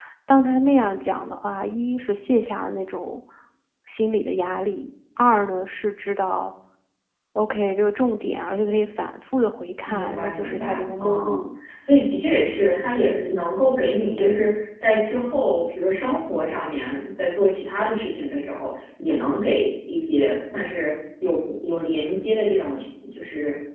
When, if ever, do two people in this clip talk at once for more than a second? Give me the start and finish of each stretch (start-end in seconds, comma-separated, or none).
9.8-11.4